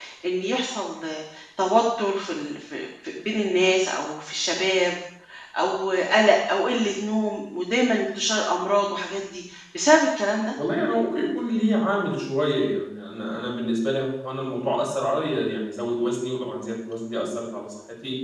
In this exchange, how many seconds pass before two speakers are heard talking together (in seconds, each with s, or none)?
none